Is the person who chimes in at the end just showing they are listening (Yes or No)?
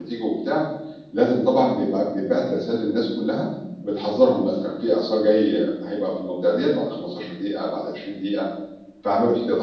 No